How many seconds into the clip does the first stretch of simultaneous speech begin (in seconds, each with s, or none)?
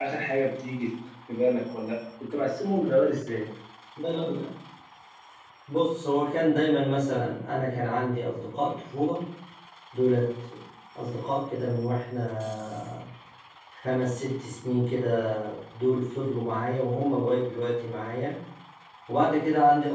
none